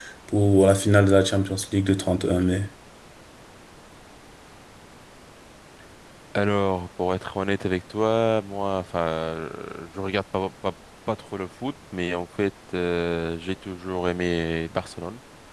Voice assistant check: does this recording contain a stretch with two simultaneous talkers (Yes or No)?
No